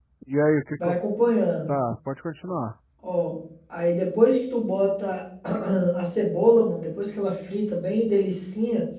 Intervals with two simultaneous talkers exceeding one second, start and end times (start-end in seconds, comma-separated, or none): none